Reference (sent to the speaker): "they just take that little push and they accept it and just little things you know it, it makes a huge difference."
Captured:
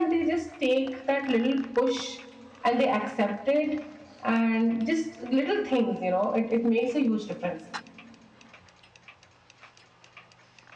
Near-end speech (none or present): none